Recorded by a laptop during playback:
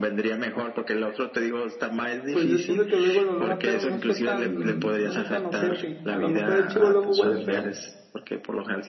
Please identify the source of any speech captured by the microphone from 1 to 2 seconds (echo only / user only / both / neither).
echo only